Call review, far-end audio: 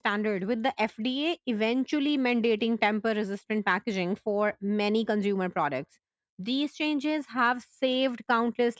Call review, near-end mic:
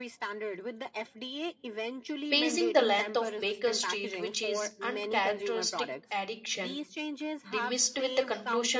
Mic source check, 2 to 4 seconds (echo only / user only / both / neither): both